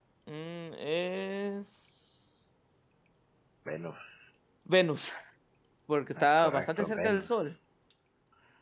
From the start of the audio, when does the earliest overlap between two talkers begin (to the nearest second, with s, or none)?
6 s